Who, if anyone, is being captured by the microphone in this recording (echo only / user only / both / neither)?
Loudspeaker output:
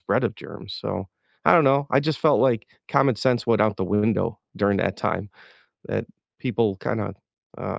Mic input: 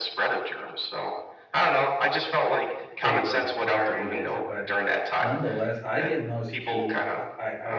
both